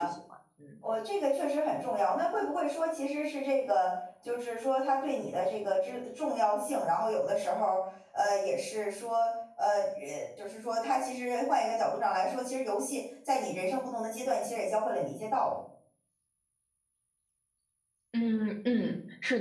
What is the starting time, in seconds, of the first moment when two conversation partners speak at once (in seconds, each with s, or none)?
none